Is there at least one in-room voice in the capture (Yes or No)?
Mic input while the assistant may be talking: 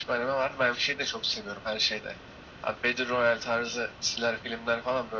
No